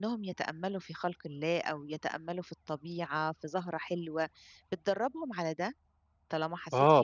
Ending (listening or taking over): taking over